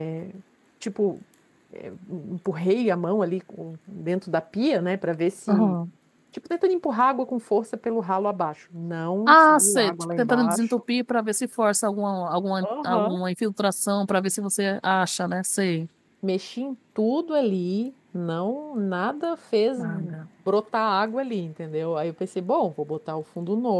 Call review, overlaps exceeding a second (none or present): present